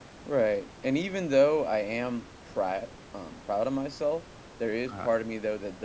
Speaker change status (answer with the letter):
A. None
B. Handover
A